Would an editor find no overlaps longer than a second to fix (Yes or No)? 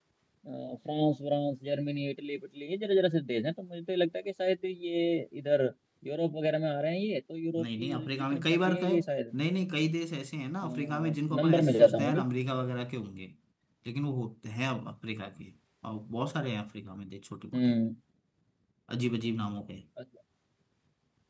No